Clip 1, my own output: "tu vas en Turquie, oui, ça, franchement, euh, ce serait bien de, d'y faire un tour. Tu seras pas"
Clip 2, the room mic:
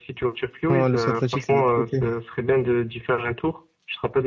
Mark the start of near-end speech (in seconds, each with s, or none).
0.7 s